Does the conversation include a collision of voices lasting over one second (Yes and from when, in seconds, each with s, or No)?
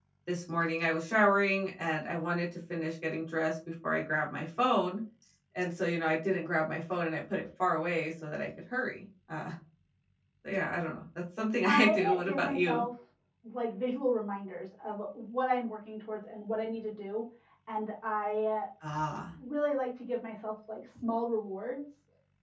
Yes, from 11.6 s